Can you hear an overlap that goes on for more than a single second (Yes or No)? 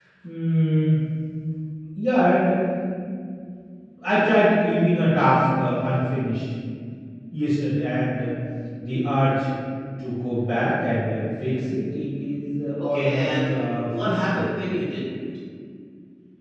Yes